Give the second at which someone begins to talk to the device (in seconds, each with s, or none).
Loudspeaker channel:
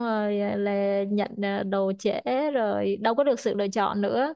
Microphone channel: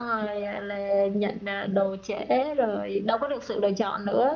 none